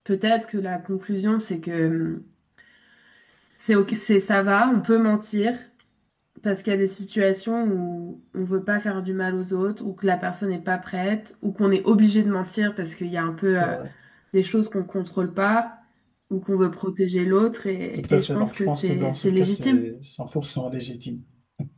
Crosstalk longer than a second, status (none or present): present